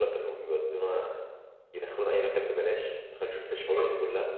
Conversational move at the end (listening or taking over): listening